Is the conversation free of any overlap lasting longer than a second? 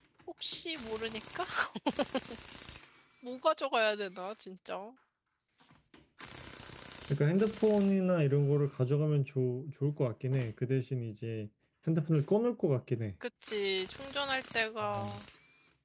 Yes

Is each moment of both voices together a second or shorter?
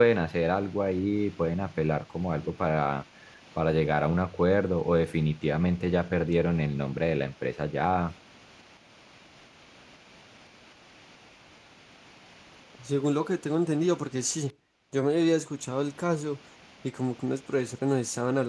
Yes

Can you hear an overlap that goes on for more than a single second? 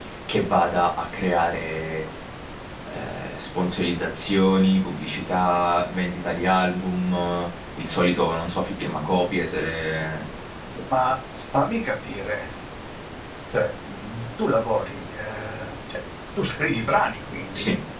No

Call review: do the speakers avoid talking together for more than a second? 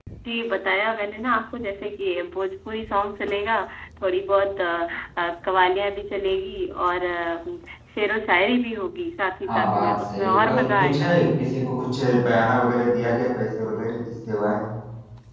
No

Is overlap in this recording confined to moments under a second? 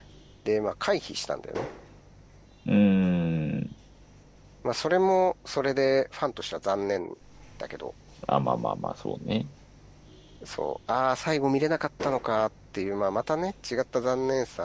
Yes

